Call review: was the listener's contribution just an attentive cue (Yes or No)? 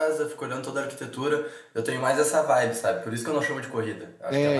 No